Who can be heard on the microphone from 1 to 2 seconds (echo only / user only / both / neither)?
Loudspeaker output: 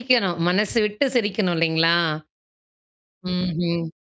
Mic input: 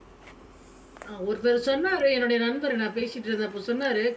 user only